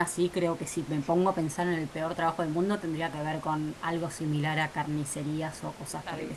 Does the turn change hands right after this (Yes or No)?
No